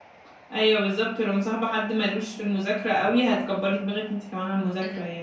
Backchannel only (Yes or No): No